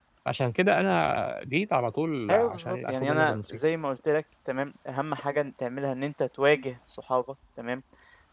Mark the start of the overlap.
2 s

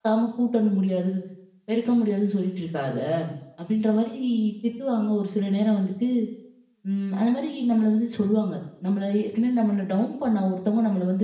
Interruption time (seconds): none

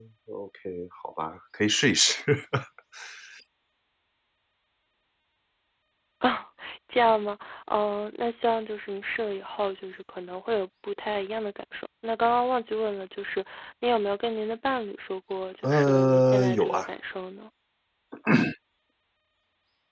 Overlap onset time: 16 s

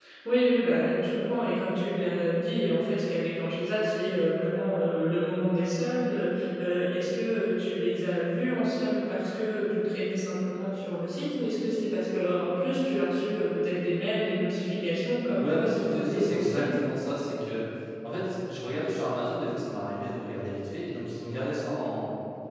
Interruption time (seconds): 15 s

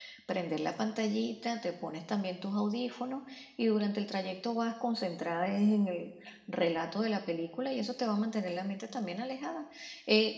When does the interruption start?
none

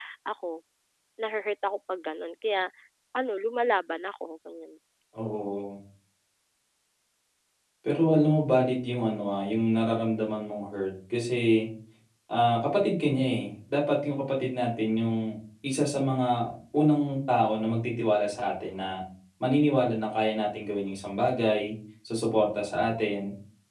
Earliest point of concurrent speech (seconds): none

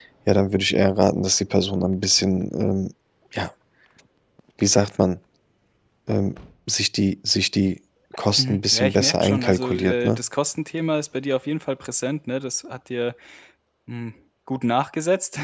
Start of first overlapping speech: 8 s

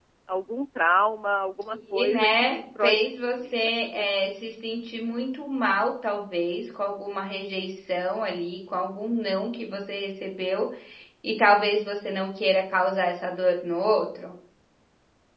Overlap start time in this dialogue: 2 s

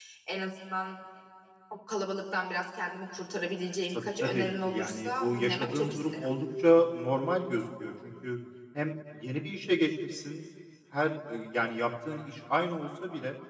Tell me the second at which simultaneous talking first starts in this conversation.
4 s

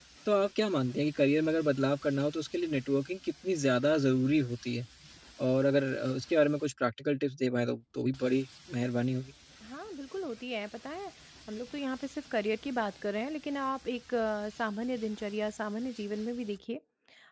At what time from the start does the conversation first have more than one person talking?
none

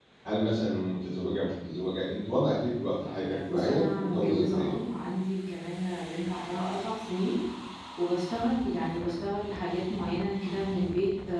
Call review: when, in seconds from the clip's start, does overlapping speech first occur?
3 s

